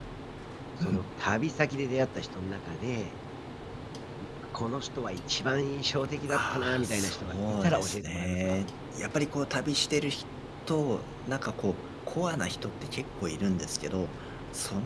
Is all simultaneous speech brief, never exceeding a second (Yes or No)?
No